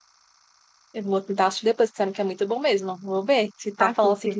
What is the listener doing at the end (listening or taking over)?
listening